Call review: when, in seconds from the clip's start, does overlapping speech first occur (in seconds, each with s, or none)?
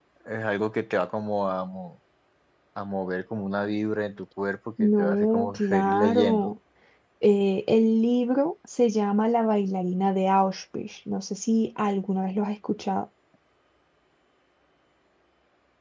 4.8 s